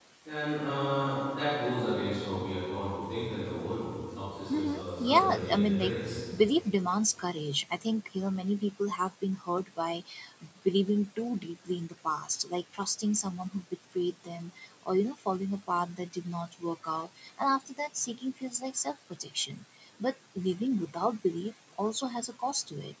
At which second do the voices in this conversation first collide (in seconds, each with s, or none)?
4.5 s